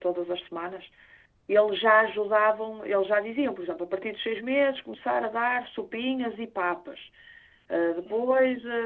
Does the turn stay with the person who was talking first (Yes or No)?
Yes